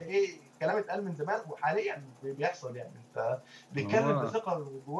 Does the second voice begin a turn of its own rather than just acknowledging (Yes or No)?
No